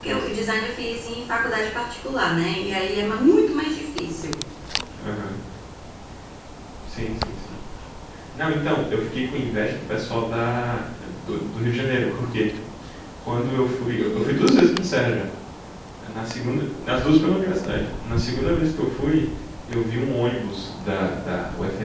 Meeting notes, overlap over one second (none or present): none